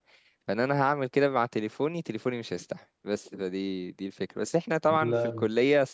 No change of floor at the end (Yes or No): Yes